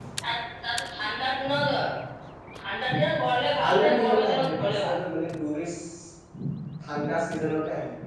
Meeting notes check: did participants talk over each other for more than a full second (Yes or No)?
Yes